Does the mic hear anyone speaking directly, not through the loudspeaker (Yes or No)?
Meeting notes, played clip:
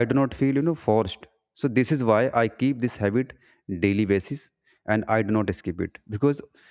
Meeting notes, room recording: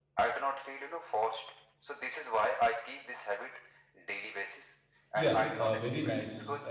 Yes